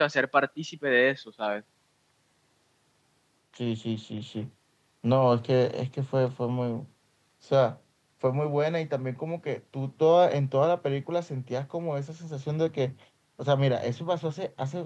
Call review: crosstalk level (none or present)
none